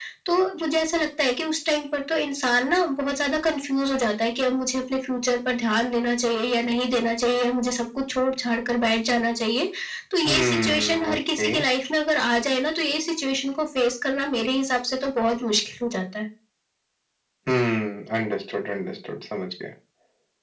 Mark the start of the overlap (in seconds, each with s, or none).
10.2 s